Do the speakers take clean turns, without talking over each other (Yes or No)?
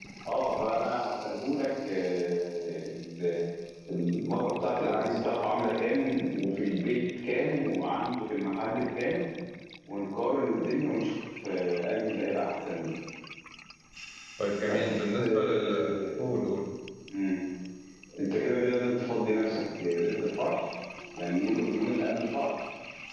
No